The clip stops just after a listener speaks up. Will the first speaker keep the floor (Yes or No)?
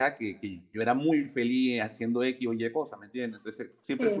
Yes